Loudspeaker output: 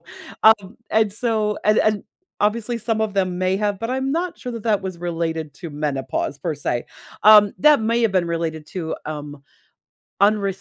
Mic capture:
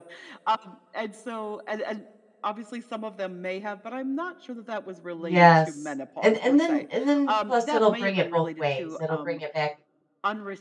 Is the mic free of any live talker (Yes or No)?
No